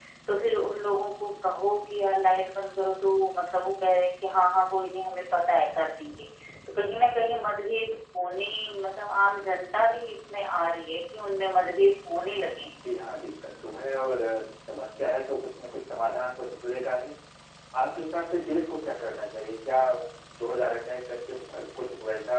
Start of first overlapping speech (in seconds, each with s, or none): none